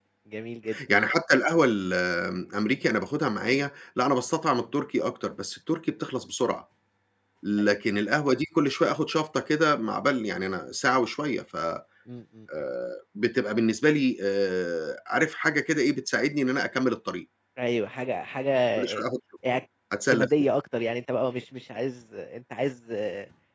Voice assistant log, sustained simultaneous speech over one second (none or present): none